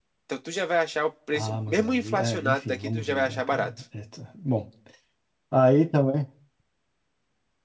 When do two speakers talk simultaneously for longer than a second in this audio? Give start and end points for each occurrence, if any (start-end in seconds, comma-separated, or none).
1.3-3.7